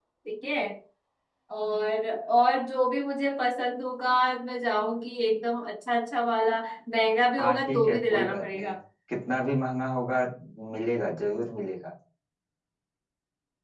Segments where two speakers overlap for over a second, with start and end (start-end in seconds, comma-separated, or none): 7.4-8.7